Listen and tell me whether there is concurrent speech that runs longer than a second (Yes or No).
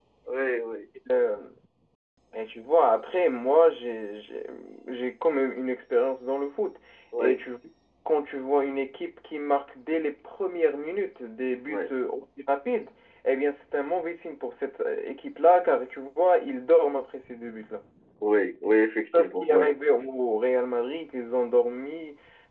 No